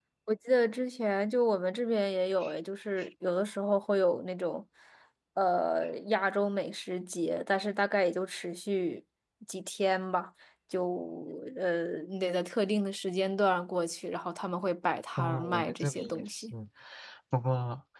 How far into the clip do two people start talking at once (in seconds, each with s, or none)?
15.2 s